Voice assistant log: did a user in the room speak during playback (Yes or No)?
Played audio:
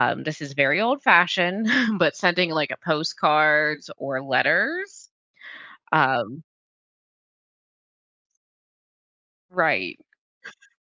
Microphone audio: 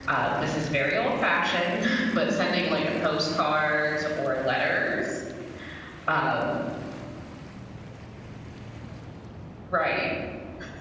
No